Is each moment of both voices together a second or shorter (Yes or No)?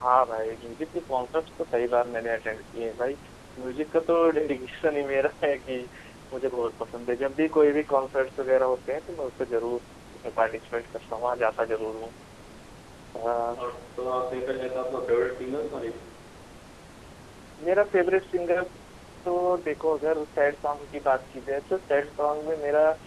Yes